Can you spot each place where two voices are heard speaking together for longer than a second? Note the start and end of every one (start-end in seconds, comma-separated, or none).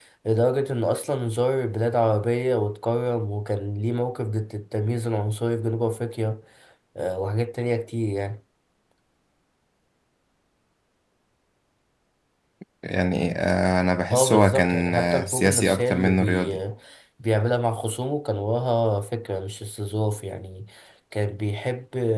14.1-16.5